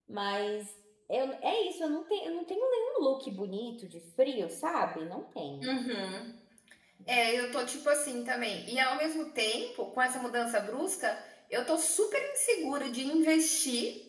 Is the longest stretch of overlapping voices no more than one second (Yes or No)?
Yes